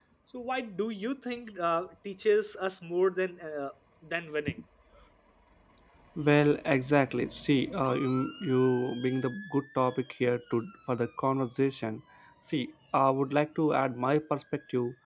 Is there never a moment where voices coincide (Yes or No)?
Yes